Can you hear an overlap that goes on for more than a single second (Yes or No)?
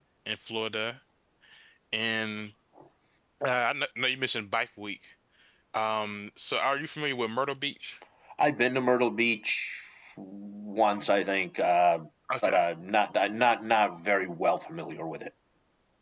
No